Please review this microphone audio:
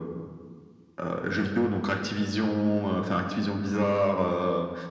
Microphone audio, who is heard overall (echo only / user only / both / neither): echo only